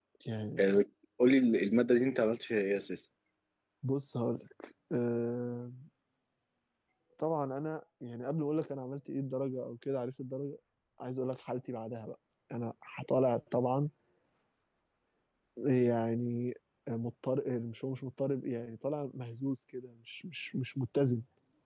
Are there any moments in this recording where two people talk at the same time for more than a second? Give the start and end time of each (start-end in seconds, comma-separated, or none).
none